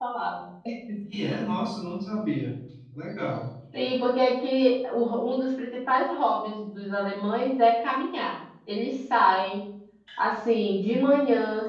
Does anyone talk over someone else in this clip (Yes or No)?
No